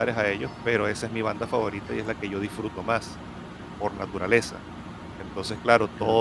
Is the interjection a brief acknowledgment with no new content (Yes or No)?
Yes